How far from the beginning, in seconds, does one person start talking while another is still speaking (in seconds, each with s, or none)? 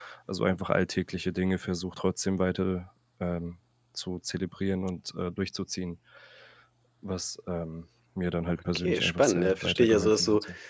8.8 s